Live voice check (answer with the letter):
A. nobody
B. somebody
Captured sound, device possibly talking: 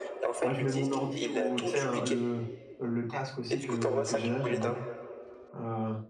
B